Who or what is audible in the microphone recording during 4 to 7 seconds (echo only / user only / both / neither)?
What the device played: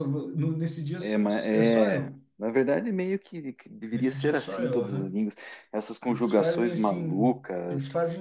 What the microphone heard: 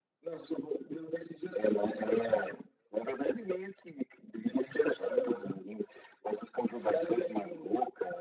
echo only